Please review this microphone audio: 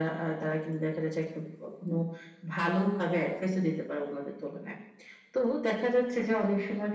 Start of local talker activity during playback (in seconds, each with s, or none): none